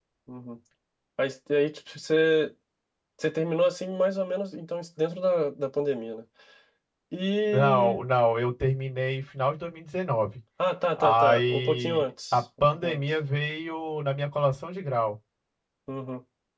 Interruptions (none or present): present